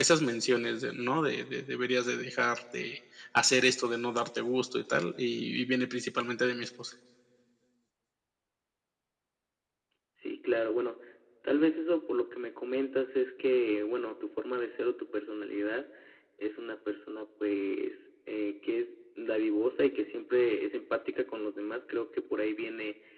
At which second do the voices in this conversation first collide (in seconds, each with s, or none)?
none